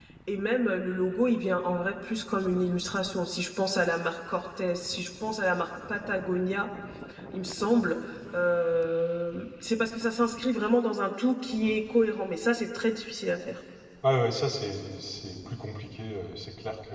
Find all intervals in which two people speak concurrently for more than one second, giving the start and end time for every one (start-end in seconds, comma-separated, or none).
none